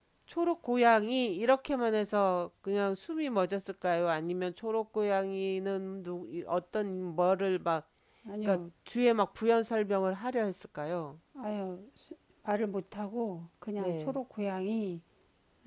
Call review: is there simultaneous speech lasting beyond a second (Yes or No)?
No